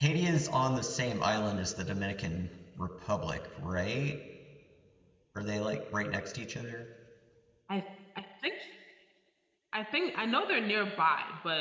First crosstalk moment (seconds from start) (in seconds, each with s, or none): none